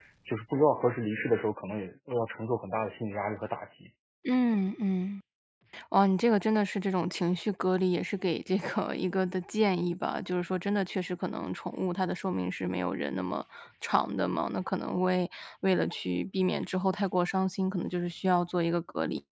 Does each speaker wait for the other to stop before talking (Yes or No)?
Yes